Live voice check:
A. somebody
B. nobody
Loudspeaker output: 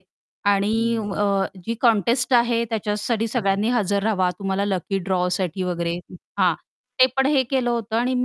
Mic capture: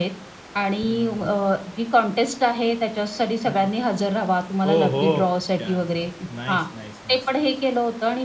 A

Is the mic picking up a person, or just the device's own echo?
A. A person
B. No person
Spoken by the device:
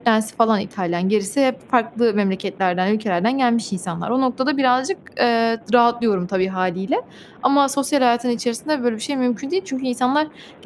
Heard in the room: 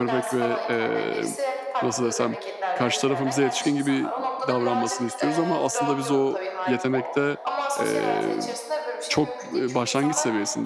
A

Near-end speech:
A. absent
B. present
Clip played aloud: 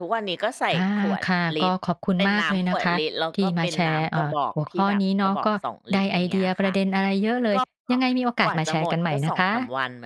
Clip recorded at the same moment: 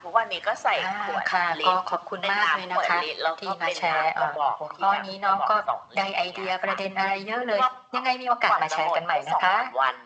A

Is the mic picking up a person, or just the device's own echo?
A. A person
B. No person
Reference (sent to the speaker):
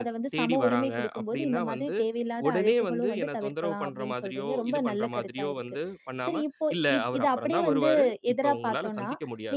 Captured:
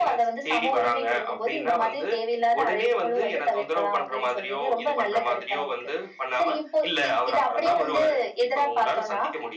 B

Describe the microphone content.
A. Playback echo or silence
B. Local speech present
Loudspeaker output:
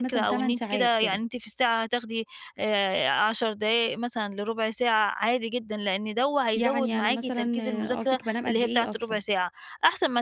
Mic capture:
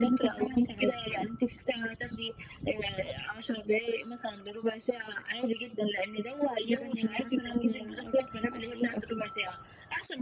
A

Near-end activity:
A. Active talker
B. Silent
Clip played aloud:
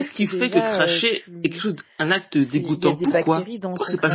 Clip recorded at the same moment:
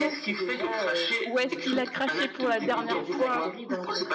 A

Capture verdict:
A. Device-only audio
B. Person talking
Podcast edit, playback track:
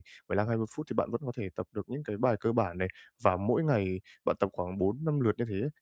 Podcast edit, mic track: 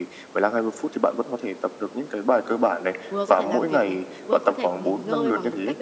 B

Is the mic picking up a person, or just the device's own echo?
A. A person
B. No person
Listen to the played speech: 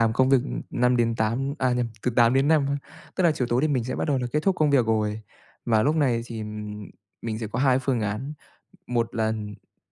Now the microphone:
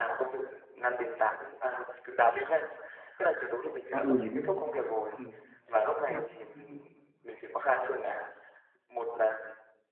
A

